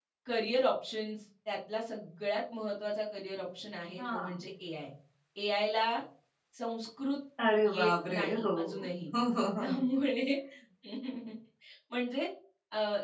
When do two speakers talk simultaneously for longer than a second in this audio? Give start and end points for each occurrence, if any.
7.6-8.9

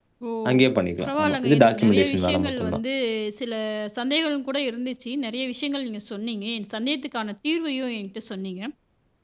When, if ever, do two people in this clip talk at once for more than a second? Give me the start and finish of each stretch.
1.0-2.8

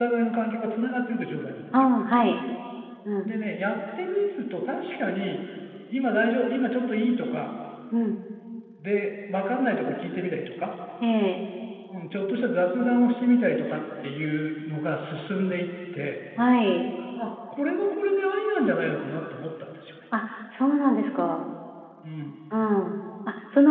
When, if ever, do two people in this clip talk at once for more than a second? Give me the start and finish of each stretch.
none

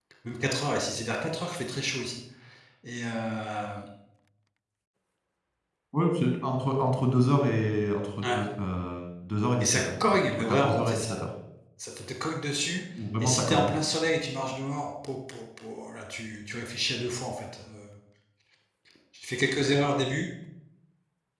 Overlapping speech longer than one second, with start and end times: 9.6-11.2

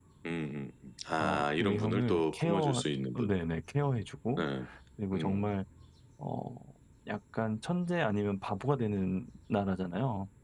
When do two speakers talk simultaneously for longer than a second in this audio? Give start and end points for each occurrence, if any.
1.1-2.8

